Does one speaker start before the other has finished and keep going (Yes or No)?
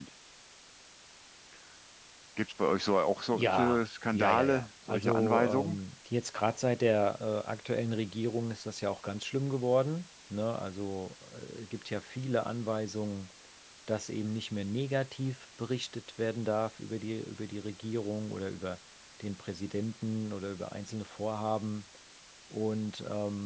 Yes